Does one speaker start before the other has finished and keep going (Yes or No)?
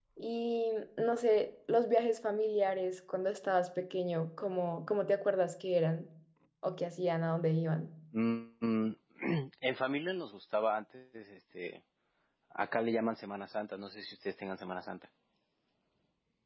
No